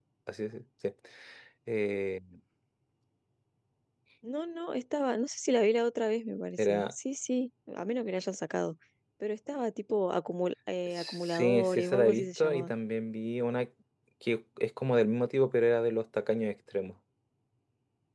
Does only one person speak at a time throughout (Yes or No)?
No